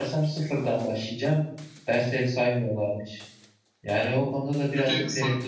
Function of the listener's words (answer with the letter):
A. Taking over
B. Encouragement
A